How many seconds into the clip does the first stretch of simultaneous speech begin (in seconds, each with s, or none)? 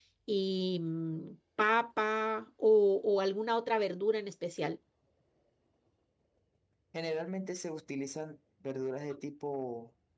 none